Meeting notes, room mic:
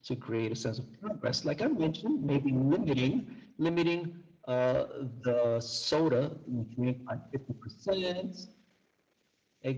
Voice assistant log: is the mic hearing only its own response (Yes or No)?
Yes